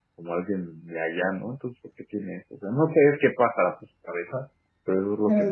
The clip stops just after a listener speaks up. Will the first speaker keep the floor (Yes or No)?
No